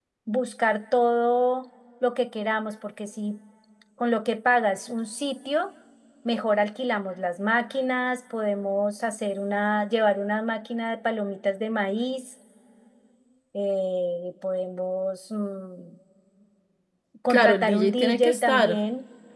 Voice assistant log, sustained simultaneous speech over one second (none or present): present